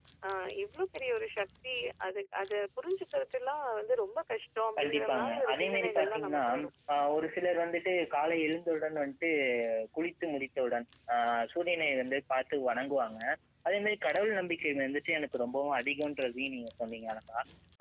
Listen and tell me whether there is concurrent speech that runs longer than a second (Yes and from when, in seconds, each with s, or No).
Yes, from 4.8 s